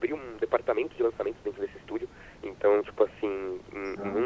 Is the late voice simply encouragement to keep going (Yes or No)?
Yes